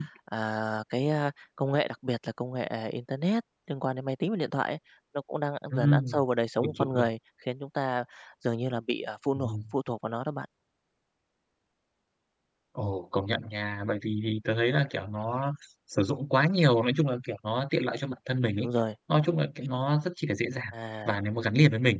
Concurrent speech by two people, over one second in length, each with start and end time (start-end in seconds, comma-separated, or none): none